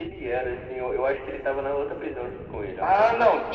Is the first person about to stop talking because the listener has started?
Yes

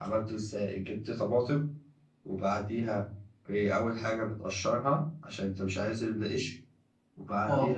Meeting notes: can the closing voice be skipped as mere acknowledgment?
Yes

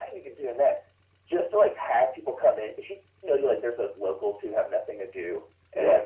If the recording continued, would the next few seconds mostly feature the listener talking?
No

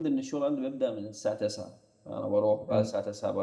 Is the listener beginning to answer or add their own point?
No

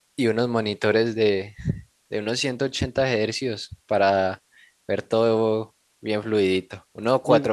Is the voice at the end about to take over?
No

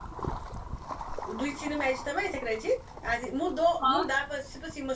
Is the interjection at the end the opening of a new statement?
No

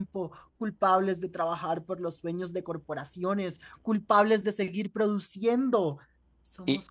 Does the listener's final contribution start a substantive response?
No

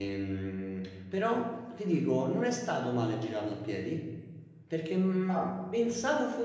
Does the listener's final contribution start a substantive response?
No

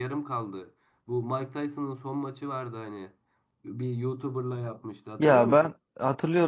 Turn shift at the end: Yes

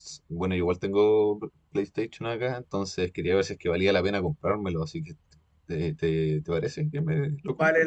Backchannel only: No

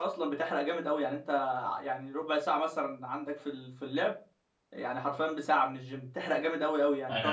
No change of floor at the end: No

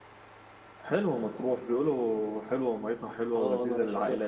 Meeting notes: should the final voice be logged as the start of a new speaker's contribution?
Yes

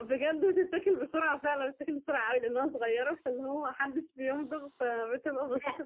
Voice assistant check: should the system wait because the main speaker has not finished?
No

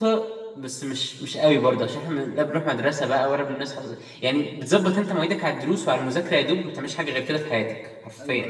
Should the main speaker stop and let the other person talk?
Yes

